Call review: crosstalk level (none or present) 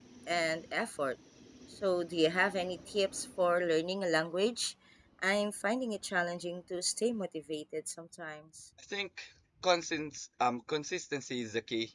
none